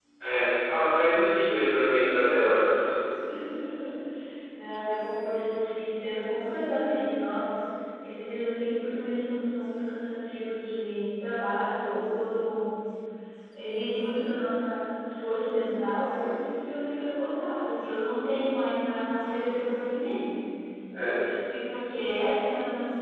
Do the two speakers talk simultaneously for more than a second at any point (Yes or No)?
No